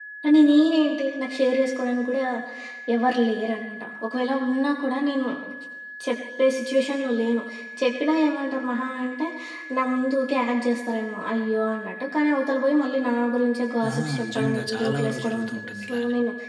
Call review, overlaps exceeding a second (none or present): present